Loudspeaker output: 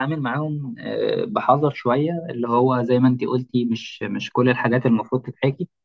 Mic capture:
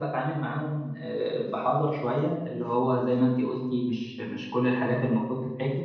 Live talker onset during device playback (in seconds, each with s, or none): none